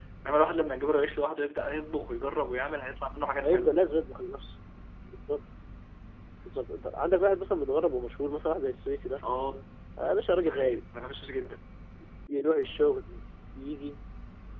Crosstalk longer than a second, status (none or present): none